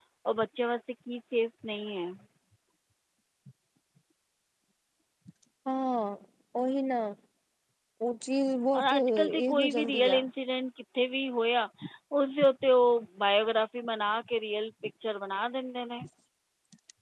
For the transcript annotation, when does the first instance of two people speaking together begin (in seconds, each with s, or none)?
8.7 s